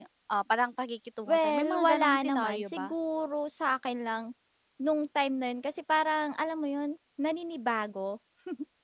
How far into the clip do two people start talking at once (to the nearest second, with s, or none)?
1 s